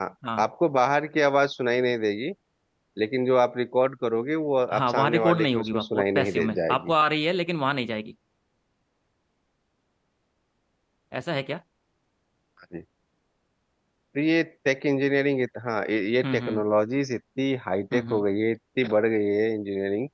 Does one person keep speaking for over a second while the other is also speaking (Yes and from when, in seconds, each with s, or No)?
Yes, from 4.7 s